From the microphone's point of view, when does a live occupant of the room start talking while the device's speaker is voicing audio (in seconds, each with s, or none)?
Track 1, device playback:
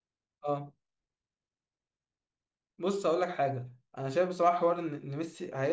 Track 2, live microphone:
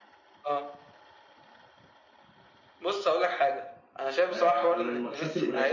4.3 s